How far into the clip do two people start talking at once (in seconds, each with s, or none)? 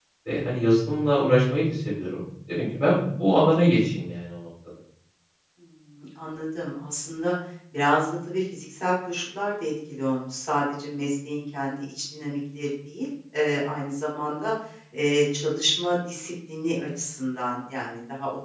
none